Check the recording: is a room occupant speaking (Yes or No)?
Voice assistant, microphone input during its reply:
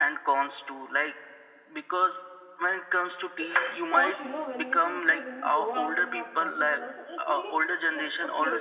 Yes